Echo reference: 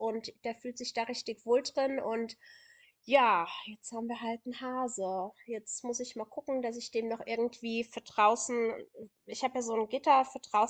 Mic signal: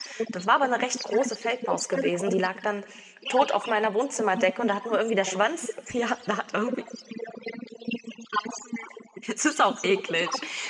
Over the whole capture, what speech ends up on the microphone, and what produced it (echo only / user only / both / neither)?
both